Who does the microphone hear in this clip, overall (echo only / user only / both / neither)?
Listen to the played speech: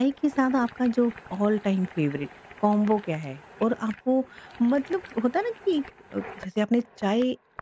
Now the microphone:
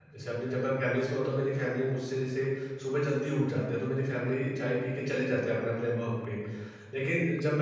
user only